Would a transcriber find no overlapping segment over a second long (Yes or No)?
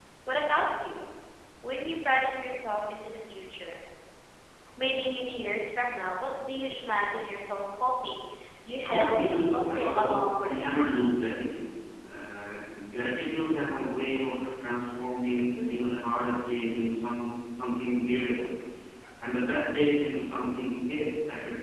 No